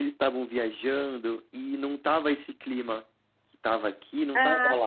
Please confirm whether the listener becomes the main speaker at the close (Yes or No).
Yes